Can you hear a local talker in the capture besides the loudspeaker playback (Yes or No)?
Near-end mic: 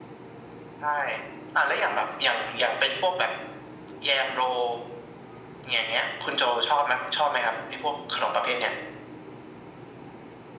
No